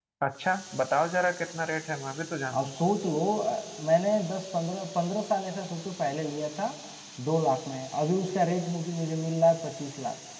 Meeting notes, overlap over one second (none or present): none